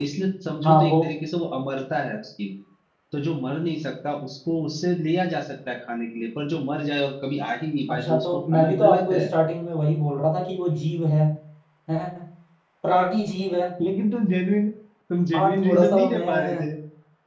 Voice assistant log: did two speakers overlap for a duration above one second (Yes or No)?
Yes